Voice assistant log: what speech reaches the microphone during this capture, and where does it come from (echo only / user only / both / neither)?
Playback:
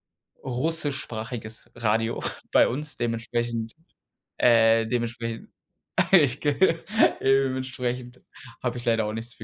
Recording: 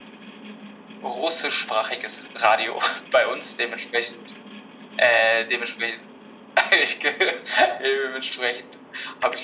echo only